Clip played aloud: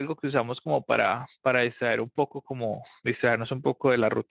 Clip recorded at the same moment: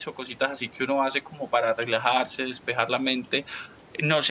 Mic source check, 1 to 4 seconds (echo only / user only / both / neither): user only